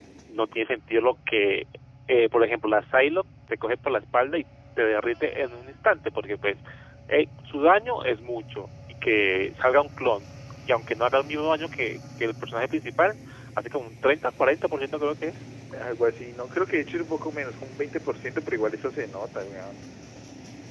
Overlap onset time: none

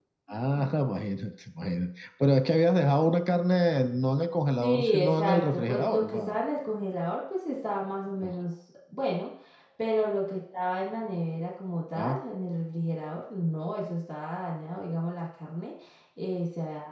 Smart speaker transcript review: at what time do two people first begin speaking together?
5 s

